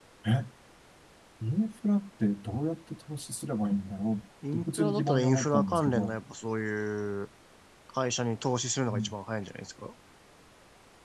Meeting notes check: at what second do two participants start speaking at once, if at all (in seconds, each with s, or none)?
4.4 s